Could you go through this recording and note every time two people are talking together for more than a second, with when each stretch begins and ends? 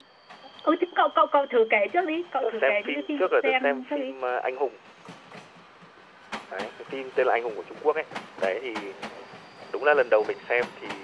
2.4-4.1

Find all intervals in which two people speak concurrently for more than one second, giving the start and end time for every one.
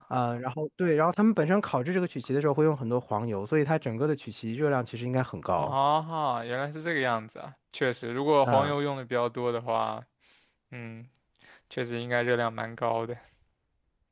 none

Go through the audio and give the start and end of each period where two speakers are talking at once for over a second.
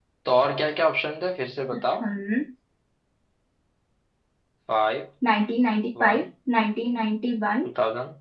none

